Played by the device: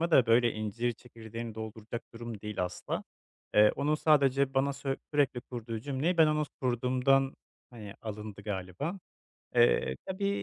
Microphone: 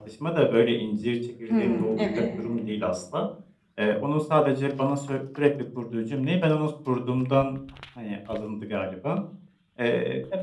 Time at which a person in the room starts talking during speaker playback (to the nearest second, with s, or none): 1 s